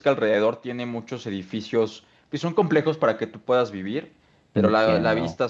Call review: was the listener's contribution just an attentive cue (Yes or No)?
Yes